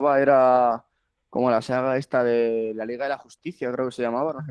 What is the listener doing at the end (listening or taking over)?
taking over